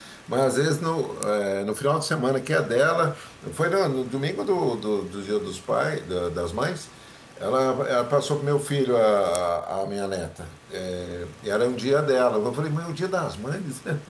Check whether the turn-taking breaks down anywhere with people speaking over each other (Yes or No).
No